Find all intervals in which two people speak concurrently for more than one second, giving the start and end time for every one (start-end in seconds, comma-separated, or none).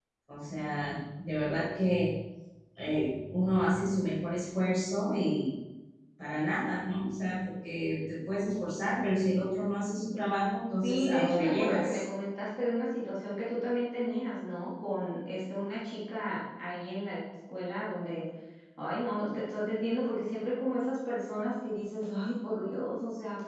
10.8-12.0